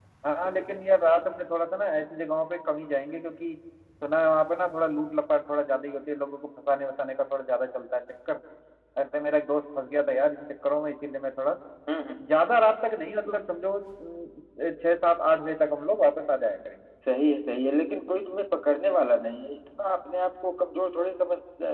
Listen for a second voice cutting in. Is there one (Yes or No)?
No